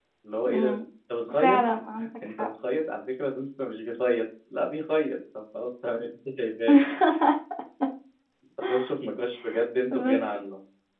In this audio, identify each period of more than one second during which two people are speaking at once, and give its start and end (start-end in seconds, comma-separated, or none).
none